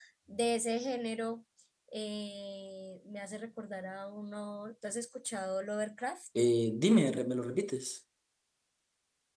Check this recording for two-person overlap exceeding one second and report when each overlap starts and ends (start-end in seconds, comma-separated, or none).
none